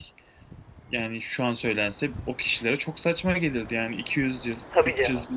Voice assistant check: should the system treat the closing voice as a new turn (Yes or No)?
No